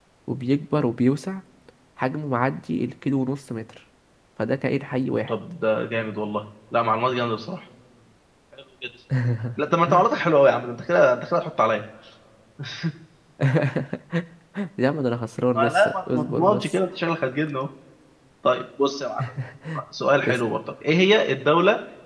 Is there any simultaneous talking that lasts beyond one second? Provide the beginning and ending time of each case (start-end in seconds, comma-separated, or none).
15.6-16.8